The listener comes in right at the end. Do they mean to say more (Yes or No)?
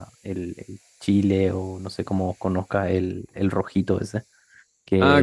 Yes